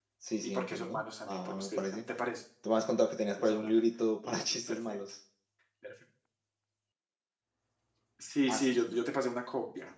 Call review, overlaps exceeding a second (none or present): present